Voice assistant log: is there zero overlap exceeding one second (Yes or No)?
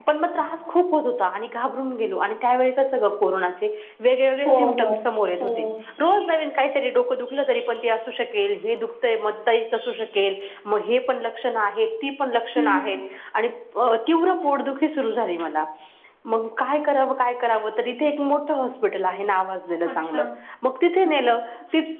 Yes